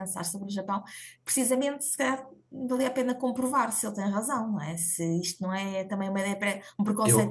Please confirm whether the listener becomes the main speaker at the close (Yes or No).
Yes